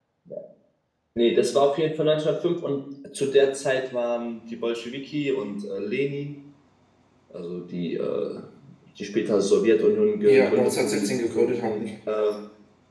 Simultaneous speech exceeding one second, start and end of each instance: 10.2-11.9

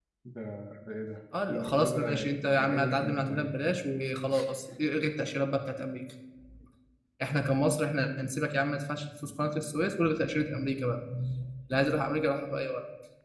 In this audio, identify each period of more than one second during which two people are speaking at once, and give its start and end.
1.5-3.8

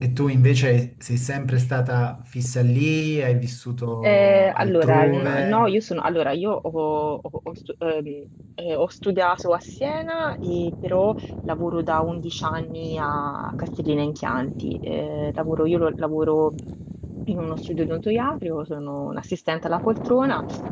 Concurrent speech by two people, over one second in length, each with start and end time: 4.0-5.7

